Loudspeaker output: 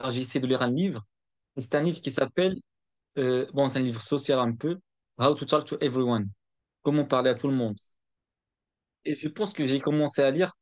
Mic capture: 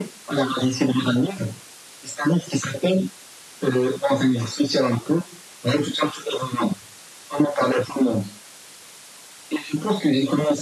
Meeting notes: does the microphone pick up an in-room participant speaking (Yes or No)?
No